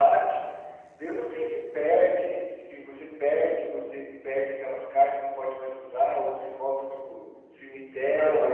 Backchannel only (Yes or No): No